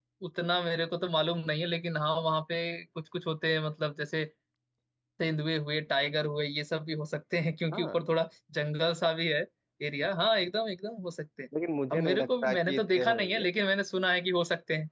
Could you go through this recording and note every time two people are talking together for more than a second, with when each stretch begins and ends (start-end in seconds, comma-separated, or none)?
11.9-13.4